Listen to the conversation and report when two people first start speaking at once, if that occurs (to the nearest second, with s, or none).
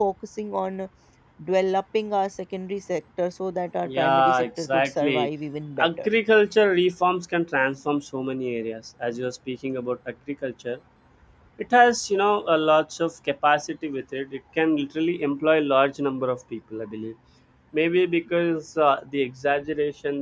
4 s